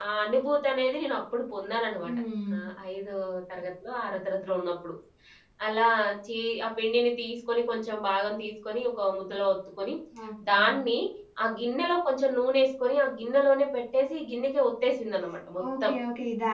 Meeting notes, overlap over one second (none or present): none